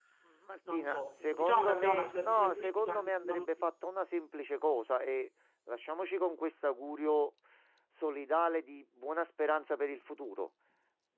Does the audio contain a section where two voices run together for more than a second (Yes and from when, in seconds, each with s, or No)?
Yes, from 0.7 s